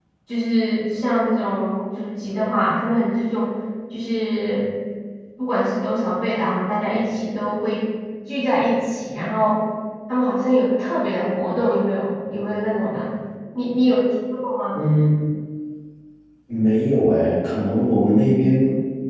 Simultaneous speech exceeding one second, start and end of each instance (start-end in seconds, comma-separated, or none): none